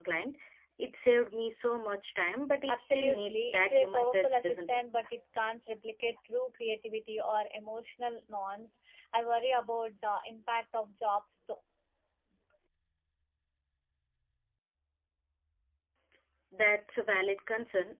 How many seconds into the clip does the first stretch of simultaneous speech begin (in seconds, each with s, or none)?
2.7 s